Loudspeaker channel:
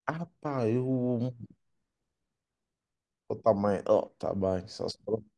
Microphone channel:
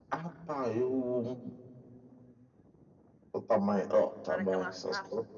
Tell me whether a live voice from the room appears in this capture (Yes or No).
Yes